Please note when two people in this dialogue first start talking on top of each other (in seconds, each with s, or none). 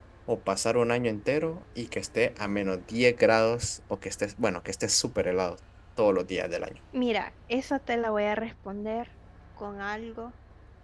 none